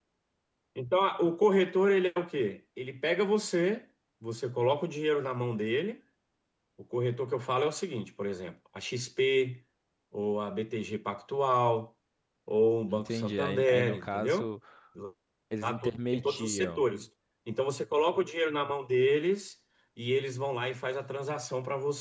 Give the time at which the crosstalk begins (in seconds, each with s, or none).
12.9 s